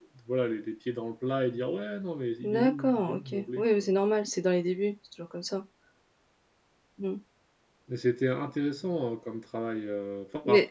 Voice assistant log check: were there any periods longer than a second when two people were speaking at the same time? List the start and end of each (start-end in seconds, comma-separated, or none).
2.4-3.9